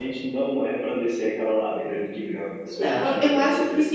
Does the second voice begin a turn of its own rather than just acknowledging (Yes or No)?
Yes